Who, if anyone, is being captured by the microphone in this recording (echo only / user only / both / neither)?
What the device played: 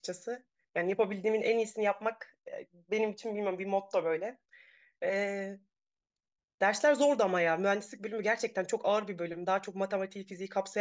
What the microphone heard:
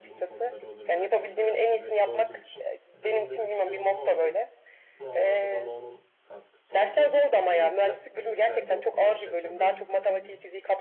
both